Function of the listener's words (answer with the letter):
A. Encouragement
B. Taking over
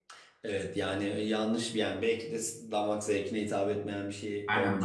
B